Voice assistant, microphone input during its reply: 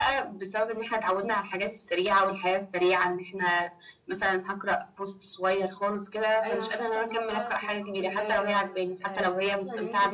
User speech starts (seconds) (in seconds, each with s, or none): 6.4 s